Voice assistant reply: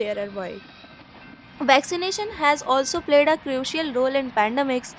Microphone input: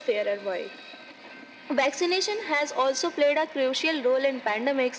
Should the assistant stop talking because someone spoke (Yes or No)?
No